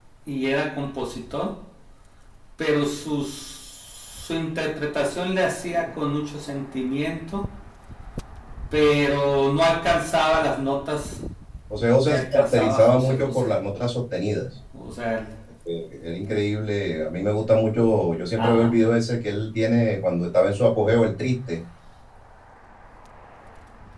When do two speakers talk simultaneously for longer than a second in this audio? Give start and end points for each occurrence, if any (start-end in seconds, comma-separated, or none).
12.1-13.5